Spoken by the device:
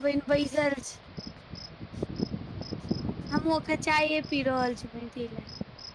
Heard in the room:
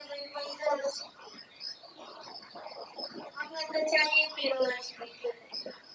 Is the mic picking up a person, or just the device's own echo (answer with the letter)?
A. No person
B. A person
A